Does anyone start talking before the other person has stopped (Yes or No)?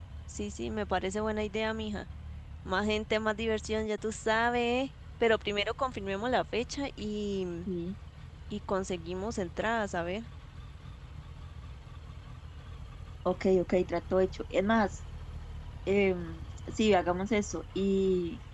No